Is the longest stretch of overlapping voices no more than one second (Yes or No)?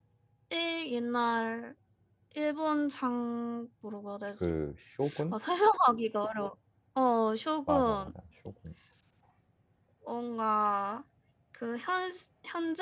Yes